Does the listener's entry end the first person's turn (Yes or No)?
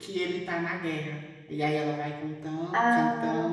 No